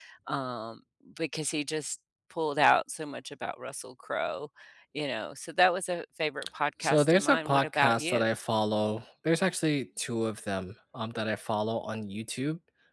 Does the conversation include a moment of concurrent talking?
Yes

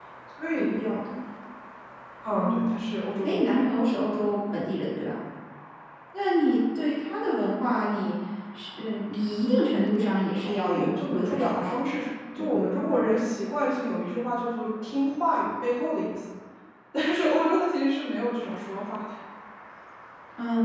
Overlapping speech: Yes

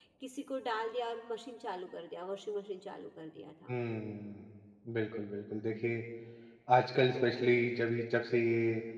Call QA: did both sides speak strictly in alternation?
Yes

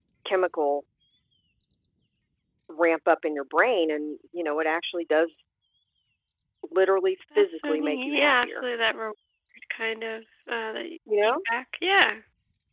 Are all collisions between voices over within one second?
No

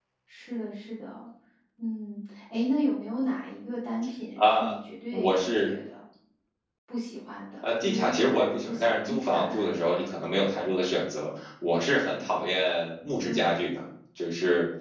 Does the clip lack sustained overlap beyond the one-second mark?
No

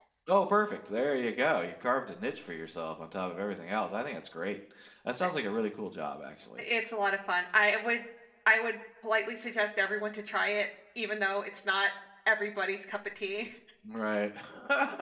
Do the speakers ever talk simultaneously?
No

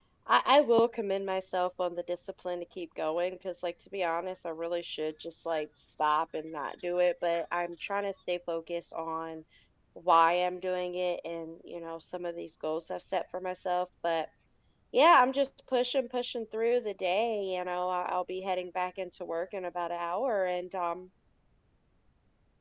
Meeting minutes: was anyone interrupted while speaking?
No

